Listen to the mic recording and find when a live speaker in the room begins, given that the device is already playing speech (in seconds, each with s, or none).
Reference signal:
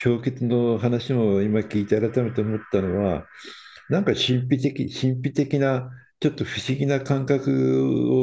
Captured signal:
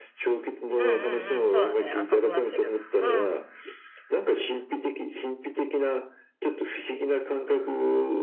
0.8 s